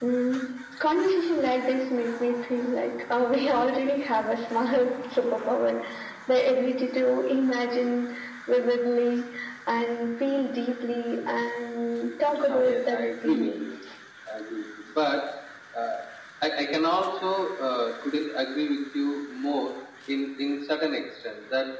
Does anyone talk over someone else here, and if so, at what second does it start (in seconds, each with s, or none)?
12.3 s